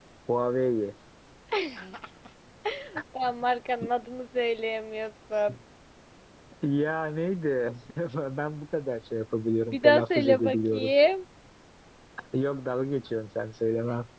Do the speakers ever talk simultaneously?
Yes, from 9.7 s

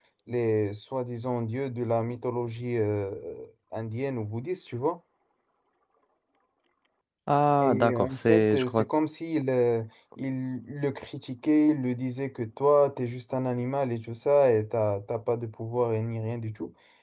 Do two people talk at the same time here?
Yes, from 7.6 s

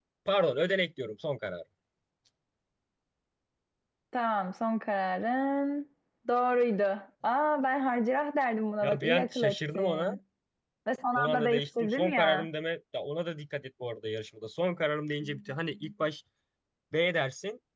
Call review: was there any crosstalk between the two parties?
Yes, from 8.8 s

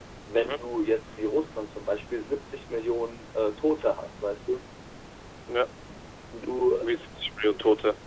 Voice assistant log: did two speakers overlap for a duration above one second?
No

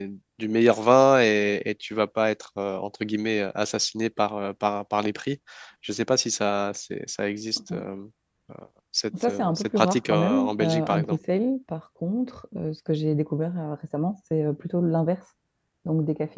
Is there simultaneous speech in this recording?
Yes, from 9.2 s

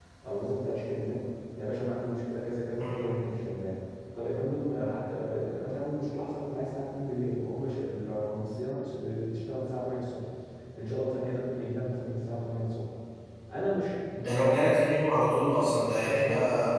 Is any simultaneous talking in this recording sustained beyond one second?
No

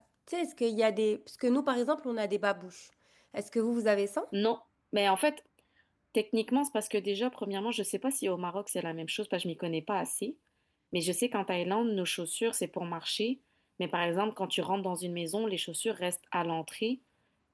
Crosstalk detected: No

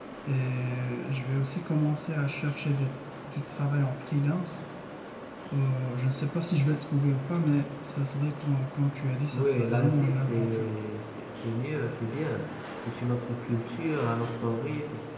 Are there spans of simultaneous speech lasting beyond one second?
Yes, from 9.3 s

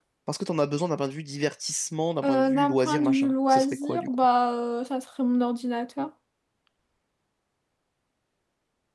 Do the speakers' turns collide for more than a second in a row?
Yes, from 2.2 s

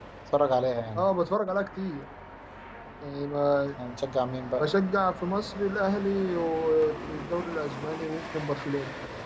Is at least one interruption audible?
No

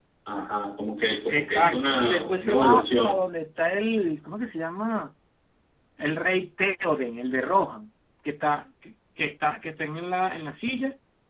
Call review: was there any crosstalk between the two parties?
Yes, from 1.3 s

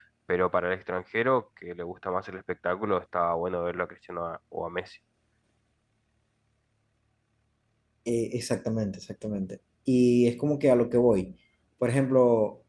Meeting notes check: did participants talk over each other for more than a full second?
No

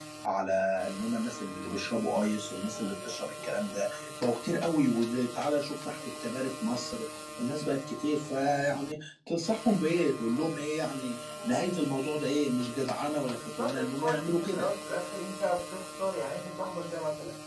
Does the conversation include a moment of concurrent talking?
Yes, from 13.4 s

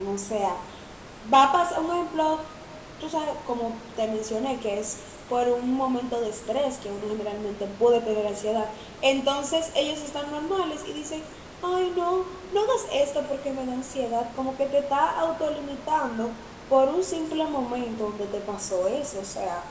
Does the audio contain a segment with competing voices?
No

